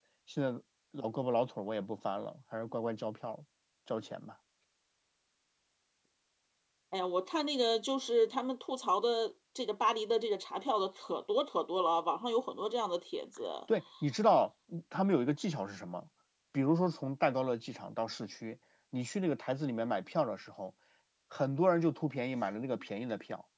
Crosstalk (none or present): none